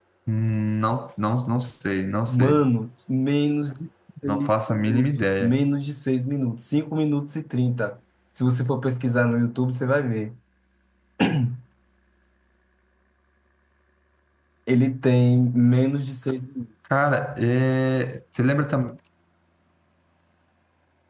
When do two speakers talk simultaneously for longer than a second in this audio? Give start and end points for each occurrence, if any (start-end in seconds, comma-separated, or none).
4.3-5.6